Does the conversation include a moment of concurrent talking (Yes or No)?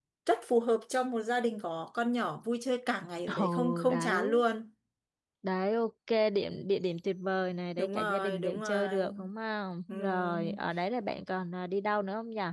Yes